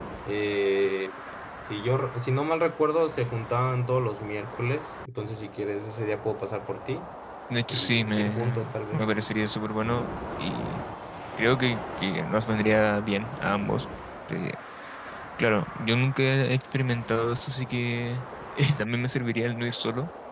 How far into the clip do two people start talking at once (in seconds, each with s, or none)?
7.7 s